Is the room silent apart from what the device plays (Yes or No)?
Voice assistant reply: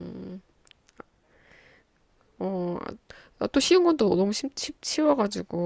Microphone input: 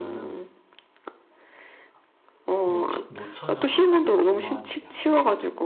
No